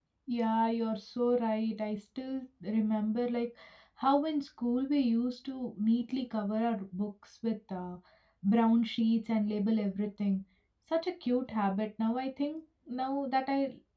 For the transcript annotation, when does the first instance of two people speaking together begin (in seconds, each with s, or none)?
none